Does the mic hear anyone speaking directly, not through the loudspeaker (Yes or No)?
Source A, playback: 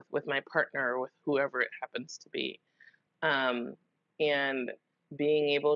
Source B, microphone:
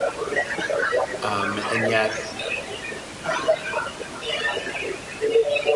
Yes